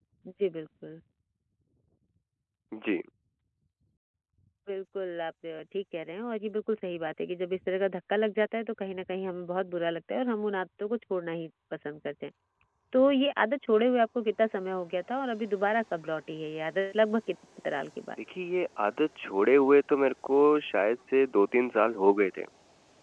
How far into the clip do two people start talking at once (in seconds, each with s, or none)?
none